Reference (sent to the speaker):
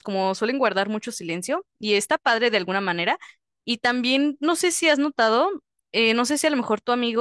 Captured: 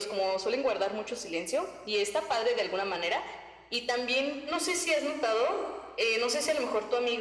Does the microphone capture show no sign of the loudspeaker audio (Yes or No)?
No